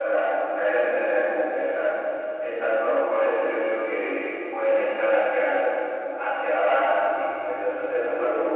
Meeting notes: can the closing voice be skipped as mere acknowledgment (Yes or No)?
No